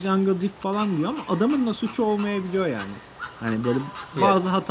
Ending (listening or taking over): listening